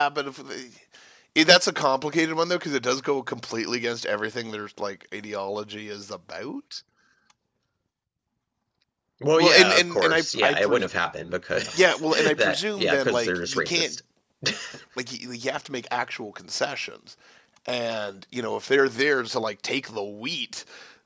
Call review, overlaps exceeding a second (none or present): present